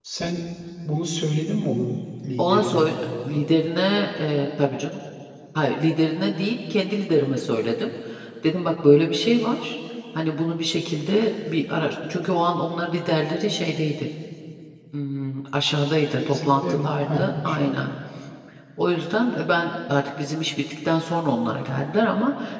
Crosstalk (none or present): present